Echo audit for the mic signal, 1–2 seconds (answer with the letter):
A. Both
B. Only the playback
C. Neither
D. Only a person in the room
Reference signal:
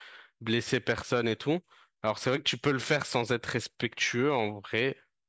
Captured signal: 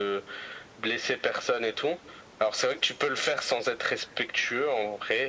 B